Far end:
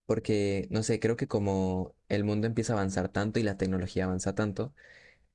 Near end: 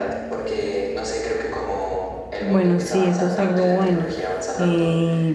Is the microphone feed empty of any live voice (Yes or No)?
No